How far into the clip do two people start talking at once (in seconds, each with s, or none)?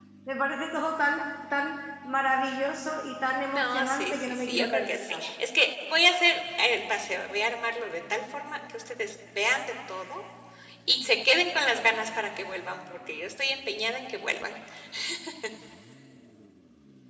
3.4 s